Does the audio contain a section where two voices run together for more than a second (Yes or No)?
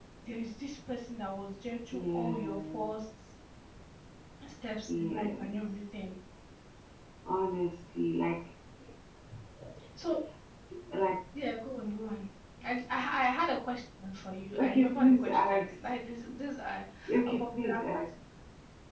Yes